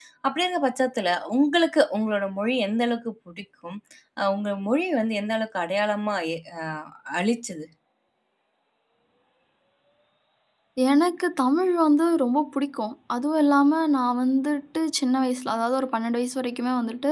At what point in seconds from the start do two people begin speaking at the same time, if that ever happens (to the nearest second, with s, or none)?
none